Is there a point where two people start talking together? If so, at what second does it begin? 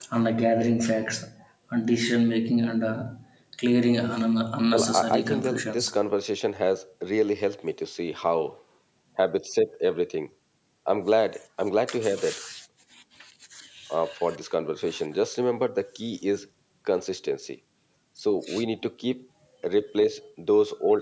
5 s

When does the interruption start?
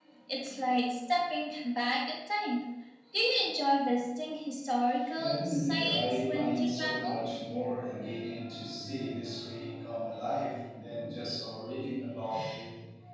5 s

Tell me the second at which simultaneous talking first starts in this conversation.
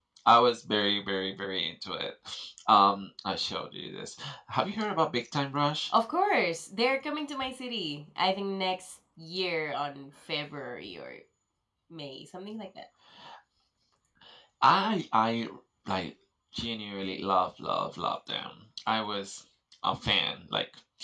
none

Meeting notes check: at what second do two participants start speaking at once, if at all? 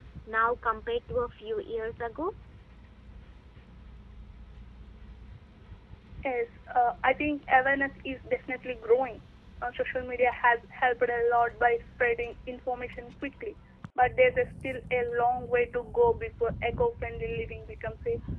none

